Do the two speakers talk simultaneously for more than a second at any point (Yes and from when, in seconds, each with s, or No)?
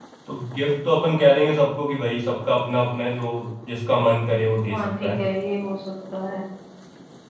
No